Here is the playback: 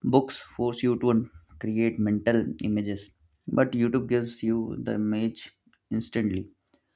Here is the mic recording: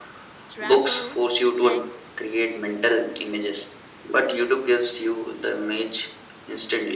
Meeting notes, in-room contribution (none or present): present